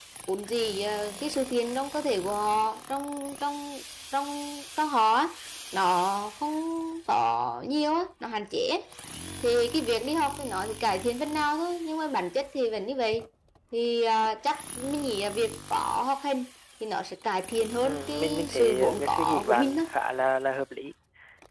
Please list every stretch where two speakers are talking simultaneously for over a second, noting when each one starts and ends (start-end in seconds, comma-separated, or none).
17.8-19.8